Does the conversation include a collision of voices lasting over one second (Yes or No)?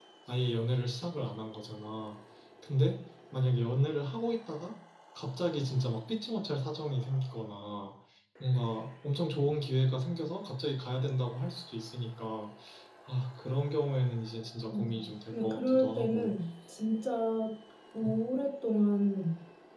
Yes